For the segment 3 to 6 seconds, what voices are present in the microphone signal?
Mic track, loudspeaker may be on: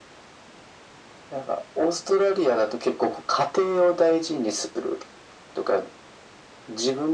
echo only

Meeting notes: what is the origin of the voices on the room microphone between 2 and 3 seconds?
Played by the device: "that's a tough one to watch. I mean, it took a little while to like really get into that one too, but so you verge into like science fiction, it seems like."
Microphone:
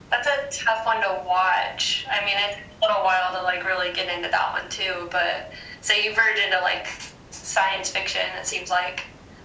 echo only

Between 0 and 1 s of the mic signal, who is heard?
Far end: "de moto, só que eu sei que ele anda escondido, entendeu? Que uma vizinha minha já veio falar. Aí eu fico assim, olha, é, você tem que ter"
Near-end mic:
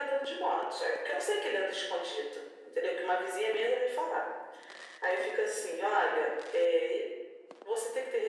echo only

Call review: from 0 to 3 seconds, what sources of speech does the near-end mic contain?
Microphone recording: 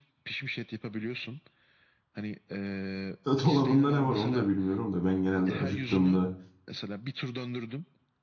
echo only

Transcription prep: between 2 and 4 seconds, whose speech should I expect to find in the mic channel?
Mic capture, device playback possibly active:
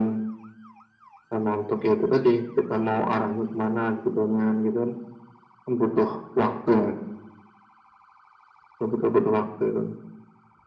echo only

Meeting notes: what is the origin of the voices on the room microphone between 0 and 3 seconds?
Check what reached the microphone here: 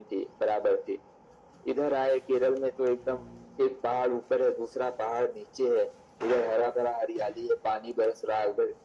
echo only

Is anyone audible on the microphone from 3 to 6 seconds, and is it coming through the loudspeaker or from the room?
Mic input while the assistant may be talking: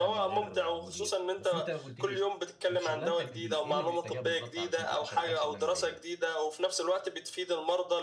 both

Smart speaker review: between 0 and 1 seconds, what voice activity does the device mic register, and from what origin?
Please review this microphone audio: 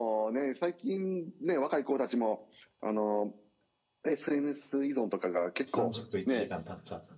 echo only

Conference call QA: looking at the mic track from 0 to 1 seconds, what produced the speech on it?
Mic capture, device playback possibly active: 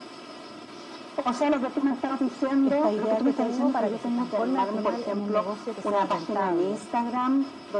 neither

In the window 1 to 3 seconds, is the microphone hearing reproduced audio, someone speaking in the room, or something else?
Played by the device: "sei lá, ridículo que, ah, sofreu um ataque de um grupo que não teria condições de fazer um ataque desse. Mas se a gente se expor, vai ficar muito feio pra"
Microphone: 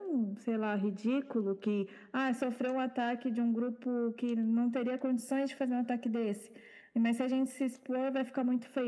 echo only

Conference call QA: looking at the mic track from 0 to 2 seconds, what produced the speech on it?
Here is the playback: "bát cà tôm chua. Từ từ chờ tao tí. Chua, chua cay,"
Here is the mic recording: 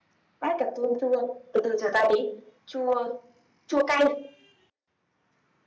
echo only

